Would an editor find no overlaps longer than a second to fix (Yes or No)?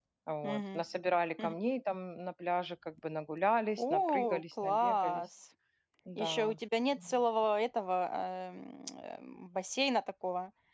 No